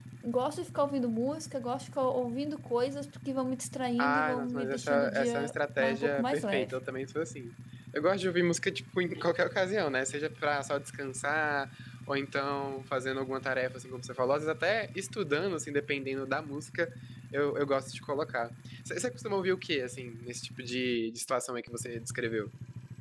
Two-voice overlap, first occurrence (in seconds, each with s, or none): 4.0 s